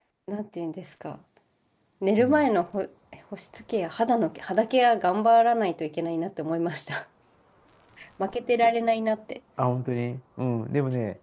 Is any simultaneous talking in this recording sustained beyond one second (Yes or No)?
No